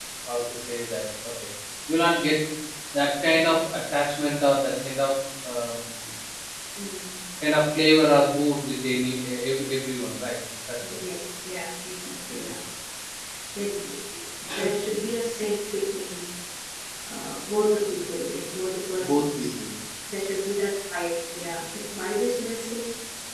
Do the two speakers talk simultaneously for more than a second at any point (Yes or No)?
No